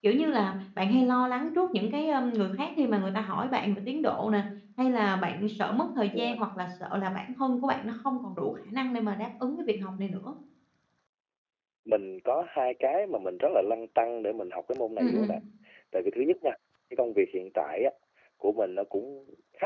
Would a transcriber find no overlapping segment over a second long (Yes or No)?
Yes